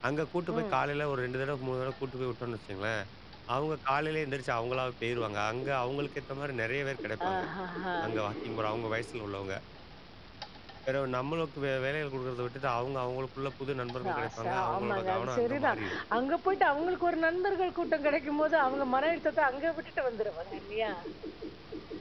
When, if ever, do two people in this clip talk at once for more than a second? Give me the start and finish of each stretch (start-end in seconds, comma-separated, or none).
14.1-15.8